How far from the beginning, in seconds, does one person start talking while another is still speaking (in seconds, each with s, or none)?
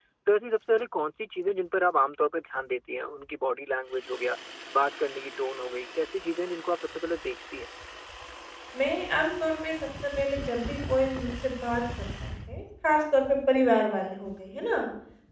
none